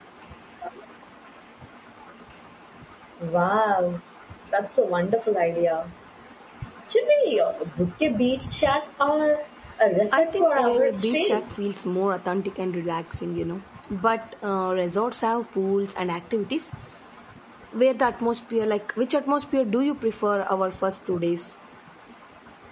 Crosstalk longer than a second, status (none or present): present